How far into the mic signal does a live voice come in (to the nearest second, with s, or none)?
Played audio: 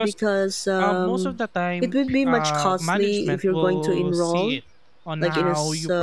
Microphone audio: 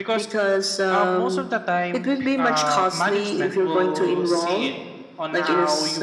none